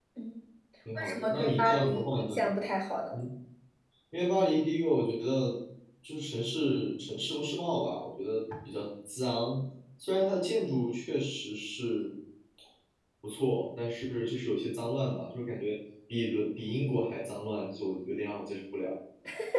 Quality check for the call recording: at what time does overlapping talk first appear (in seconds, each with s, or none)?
0.9 s